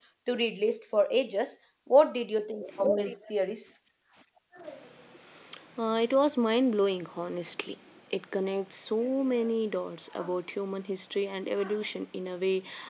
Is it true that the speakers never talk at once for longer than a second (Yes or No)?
Yes